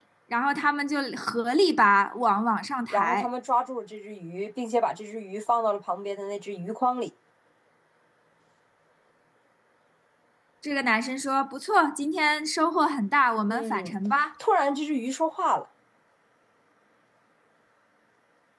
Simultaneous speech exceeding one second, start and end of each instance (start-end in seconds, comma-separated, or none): none